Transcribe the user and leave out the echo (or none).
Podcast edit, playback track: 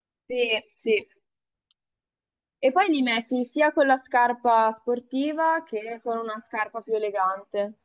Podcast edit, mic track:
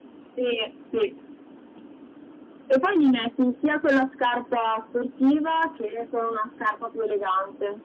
none